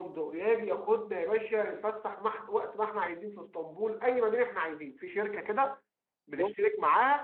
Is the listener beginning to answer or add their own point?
No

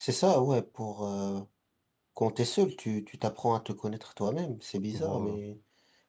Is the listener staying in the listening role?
Yes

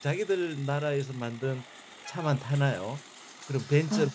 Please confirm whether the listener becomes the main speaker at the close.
No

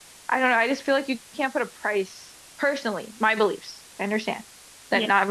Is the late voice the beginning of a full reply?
No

